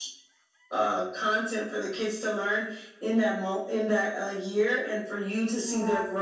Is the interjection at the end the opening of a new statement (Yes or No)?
No